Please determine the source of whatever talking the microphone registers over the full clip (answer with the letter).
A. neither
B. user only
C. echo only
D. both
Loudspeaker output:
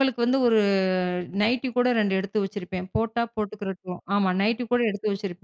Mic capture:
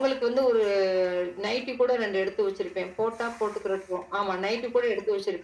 C